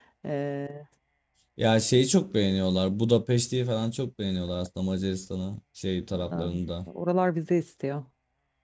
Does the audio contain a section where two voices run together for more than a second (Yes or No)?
No